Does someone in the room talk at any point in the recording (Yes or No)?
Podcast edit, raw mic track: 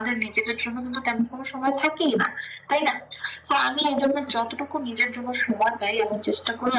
No